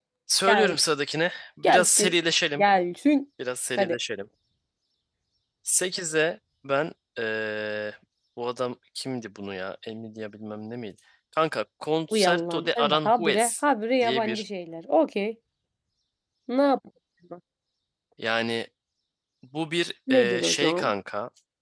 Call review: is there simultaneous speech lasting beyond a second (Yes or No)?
Yes